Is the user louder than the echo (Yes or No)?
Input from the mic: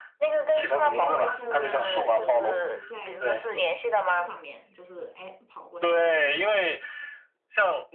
No